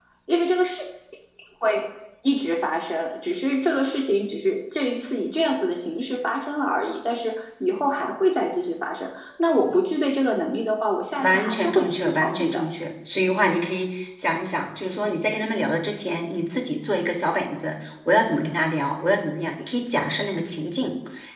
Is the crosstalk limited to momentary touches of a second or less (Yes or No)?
No